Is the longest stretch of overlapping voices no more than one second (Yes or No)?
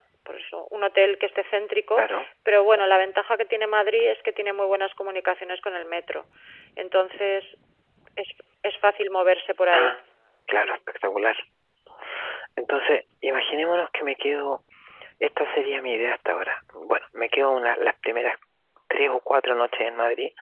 Yes